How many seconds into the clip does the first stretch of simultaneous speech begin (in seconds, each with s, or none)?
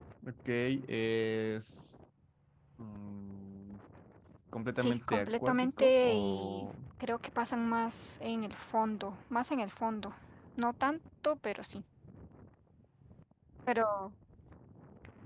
4.8 s